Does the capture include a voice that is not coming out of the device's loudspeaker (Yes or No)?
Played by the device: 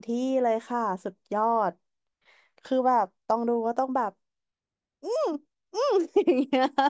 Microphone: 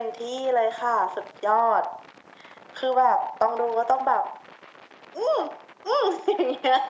No